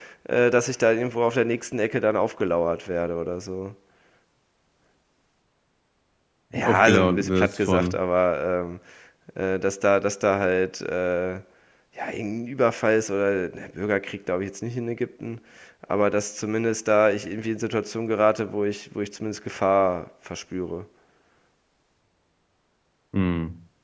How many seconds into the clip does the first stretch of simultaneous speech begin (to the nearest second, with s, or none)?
7 s